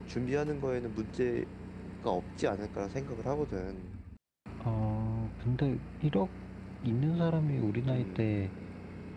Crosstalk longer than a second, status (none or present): none